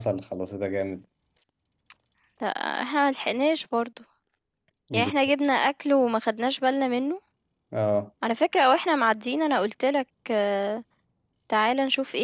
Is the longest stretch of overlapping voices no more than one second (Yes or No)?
Yes